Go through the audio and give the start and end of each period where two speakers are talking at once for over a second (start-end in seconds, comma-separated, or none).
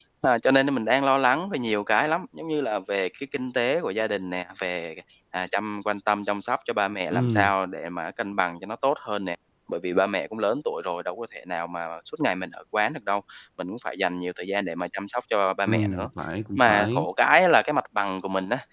none